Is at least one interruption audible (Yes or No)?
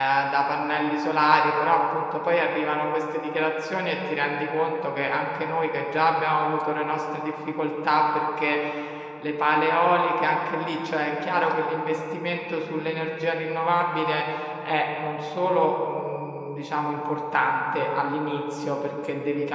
No